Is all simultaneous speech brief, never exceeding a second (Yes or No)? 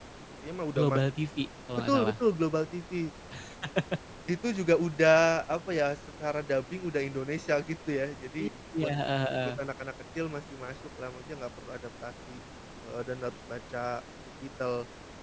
Yes